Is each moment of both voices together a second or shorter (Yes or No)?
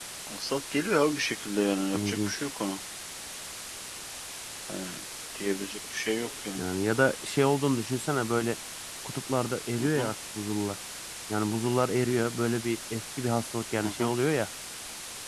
Yes